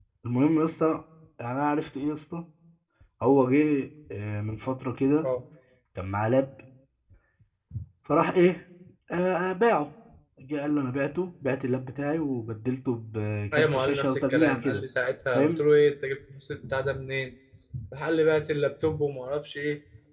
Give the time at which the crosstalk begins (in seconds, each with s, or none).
13.5 s